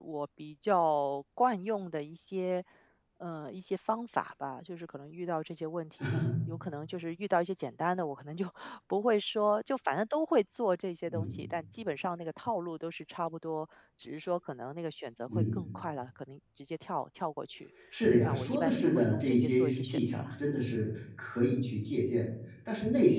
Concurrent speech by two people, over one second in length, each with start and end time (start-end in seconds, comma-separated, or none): 18.2-20.3